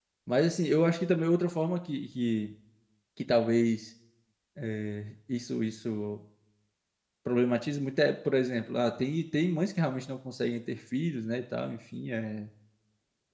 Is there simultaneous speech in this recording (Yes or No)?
No